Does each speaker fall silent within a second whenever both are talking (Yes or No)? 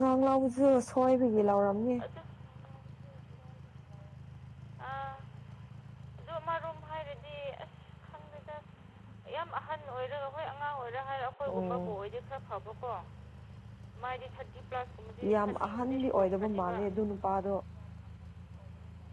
No